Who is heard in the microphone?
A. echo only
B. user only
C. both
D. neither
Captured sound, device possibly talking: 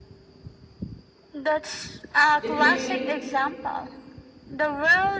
C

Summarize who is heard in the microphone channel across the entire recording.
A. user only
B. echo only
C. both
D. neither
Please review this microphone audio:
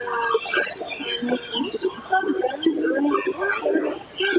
B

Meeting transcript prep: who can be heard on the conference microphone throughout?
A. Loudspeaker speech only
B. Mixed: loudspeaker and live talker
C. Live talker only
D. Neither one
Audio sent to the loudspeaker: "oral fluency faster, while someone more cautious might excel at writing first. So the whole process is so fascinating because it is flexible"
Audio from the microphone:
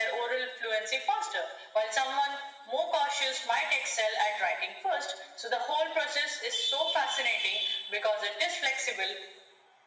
A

